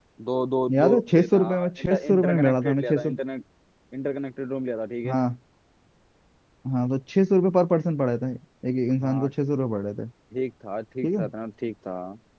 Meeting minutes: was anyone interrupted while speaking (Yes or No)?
Yes